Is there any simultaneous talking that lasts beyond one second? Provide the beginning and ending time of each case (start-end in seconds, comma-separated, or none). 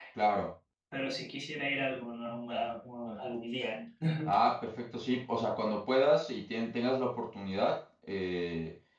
none